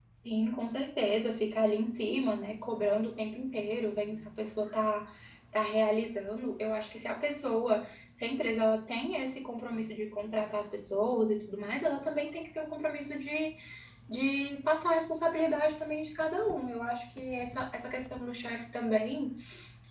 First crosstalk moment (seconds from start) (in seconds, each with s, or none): none